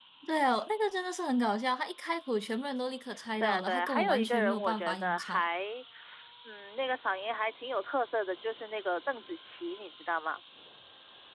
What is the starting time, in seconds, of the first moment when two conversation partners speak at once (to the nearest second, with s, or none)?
3 s